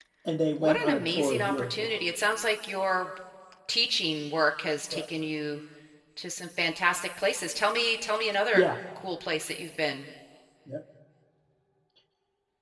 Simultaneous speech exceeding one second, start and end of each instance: 0.6-1.9

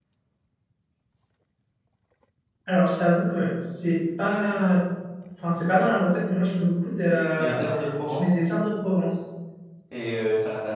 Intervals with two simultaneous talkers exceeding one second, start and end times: none

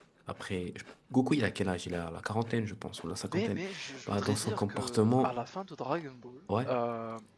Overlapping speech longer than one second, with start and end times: 4.1-5.3

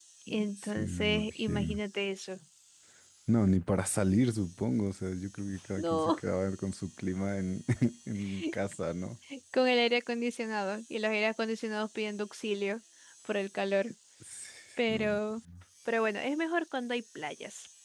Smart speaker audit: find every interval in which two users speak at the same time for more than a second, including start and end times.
0.6-1.8

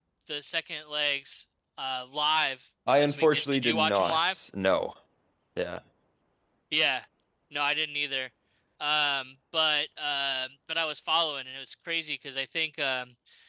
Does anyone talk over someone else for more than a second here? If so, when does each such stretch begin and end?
3.0-4.4

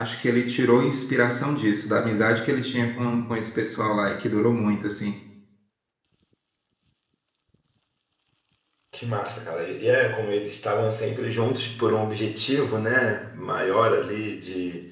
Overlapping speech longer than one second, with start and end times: none

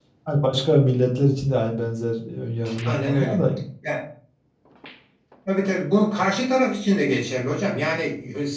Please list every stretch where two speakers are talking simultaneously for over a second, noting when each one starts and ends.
none

